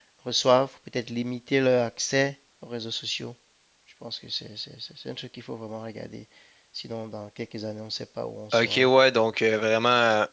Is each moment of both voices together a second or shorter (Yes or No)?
Yes